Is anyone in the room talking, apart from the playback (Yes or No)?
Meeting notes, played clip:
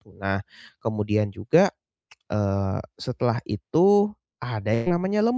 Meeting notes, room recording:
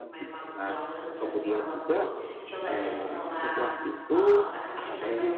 Yes